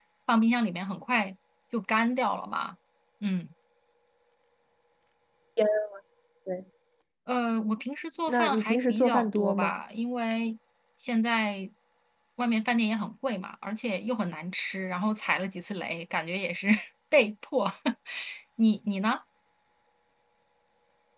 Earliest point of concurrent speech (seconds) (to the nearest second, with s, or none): 8 s